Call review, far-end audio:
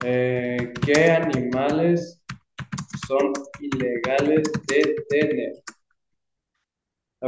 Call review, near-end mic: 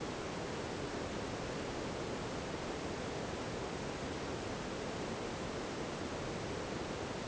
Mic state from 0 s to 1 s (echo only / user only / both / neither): neither